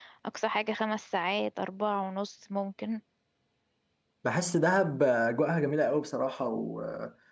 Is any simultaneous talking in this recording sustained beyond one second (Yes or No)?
No